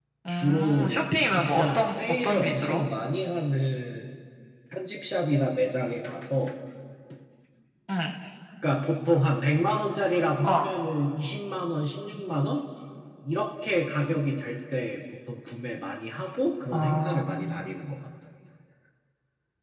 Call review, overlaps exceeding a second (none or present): present